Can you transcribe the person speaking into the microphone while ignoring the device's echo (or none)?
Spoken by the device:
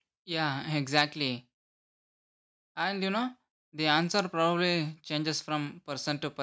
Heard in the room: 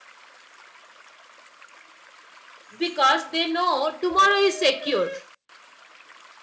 because they know tomorrow is secure.